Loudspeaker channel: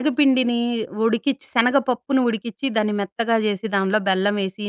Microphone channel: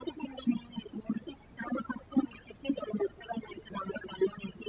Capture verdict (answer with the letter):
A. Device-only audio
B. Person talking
A